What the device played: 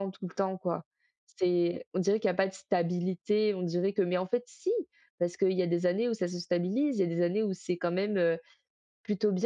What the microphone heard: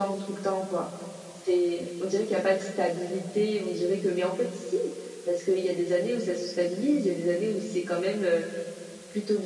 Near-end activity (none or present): none